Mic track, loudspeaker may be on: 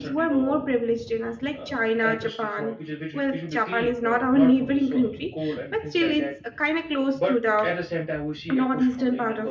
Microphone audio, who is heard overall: both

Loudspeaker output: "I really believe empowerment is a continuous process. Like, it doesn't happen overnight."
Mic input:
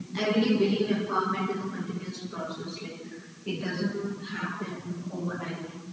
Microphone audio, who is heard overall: echo only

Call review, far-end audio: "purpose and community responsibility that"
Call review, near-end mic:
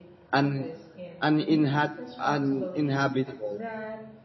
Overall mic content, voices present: both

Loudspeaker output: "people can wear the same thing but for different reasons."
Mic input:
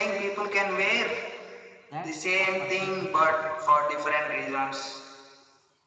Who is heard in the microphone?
both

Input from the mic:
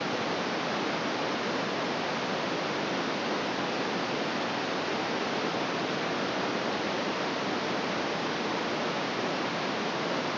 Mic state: neither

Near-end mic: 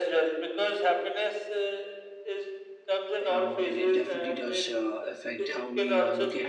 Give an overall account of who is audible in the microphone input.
both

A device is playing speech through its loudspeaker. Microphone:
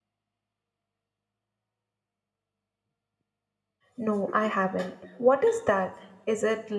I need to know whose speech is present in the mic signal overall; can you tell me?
user only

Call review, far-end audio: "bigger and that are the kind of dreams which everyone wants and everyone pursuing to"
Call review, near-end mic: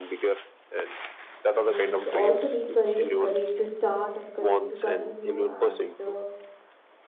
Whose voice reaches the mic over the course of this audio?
both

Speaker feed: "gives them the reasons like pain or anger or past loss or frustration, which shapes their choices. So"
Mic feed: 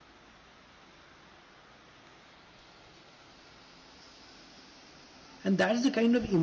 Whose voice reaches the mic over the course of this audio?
user only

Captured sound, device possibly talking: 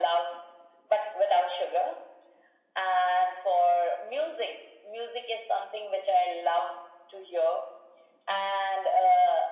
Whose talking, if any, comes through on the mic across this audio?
echo only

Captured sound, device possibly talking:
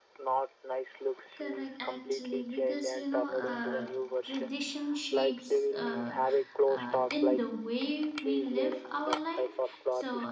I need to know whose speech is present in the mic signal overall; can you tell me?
both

